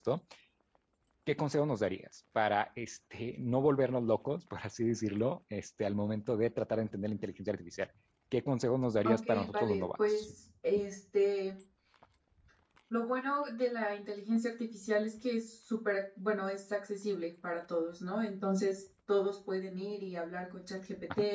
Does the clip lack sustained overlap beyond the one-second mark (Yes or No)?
No